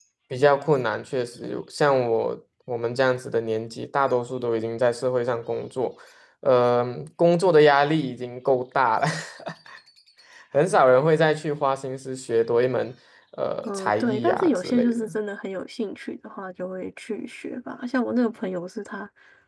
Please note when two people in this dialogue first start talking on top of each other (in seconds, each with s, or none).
13.6 s